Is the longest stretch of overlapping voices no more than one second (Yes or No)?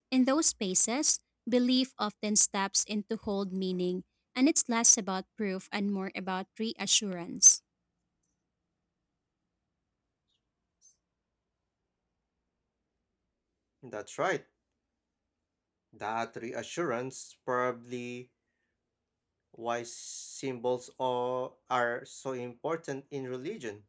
Yes